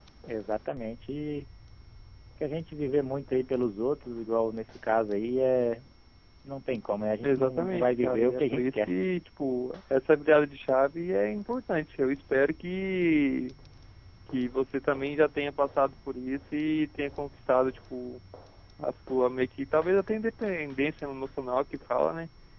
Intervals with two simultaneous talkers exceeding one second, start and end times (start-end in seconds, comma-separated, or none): 7.2-8.9